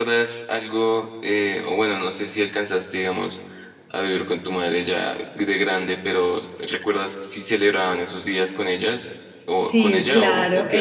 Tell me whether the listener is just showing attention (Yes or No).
No